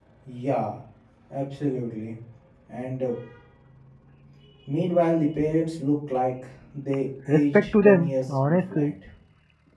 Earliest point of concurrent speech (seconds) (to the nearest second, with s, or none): 7 s